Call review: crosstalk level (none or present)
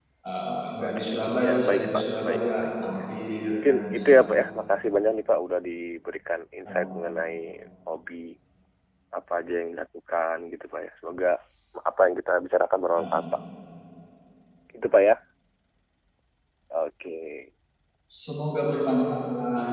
present